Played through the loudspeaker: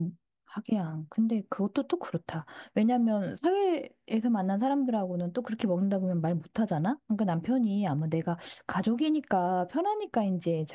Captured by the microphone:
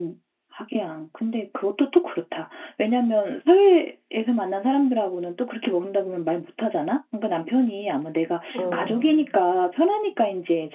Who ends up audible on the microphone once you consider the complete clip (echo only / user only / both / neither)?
both